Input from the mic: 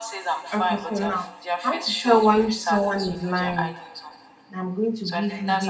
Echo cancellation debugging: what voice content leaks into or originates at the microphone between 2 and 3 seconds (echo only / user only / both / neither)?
both